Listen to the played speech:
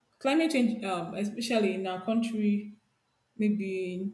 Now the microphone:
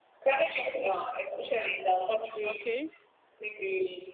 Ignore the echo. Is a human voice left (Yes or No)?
Yes